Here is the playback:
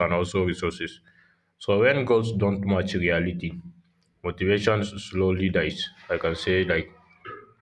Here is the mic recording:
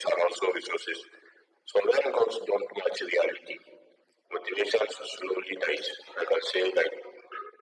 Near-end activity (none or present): none